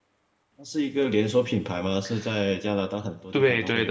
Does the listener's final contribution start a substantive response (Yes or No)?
Yes